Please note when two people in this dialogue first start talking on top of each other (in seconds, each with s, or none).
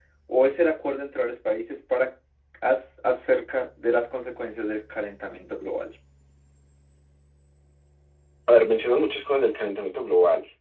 none